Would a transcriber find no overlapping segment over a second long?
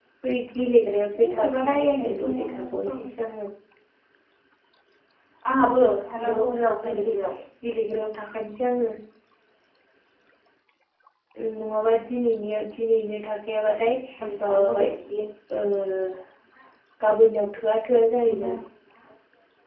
No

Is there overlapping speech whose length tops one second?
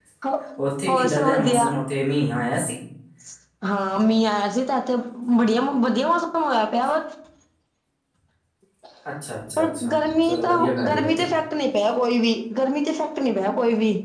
Yes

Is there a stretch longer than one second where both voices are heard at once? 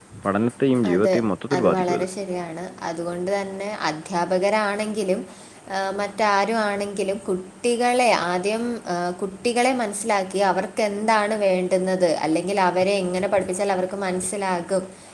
No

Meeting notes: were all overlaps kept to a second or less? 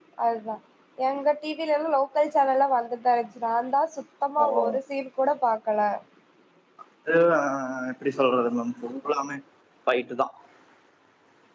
Yes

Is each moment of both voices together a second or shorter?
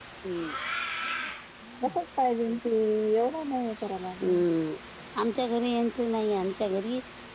Yes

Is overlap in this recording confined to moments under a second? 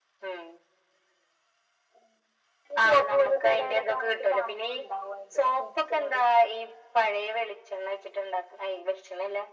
No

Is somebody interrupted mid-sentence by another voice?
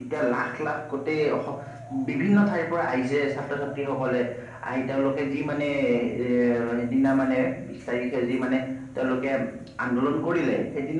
No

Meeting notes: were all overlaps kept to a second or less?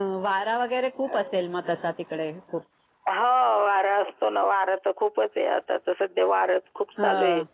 Yes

